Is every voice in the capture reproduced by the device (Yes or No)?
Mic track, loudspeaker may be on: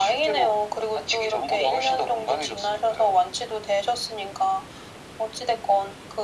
Yes